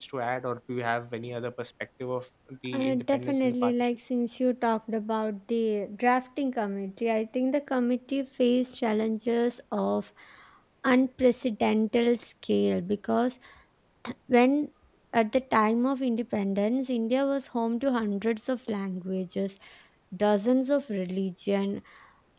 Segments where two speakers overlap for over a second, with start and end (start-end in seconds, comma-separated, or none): 2.7-4.0